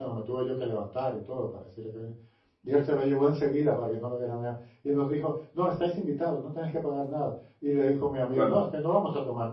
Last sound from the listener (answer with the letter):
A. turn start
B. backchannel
B